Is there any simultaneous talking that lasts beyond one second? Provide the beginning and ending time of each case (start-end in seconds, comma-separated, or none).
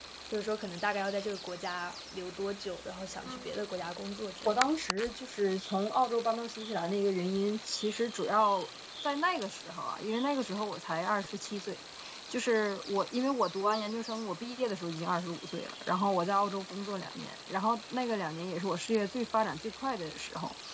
none